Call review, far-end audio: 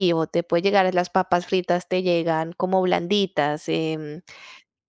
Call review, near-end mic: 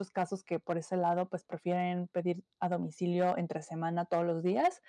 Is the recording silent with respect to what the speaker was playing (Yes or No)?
Yes